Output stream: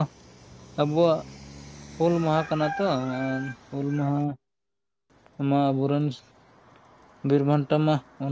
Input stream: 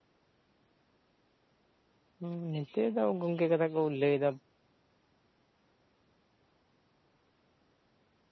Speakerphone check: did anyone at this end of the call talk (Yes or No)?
Yes